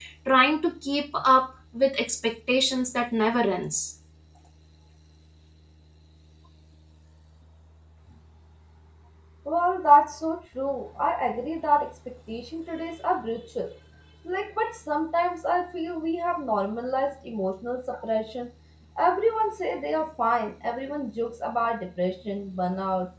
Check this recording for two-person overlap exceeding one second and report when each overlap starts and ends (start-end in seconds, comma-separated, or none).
none